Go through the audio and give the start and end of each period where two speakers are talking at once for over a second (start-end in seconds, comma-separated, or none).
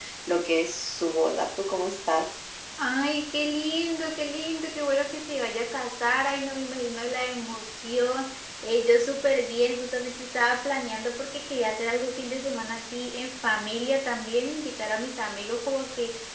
none